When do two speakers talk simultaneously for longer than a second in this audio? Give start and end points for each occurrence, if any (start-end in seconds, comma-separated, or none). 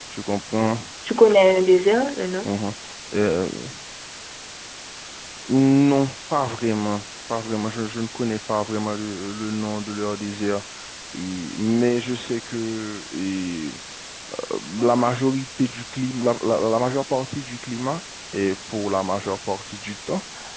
none